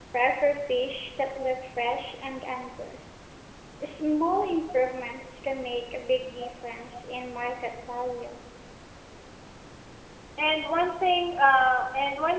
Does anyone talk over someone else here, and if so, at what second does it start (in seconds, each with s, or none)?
none